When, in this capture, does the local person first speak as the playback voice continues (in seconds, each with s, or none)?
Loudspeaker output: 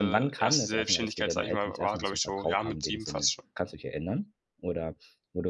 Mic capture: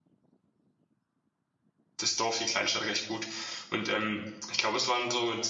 2.0 s